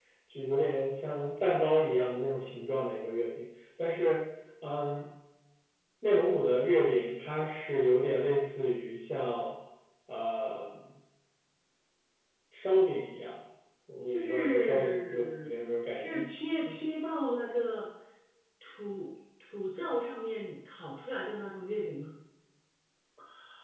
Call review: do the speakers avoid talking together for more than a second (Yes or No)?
No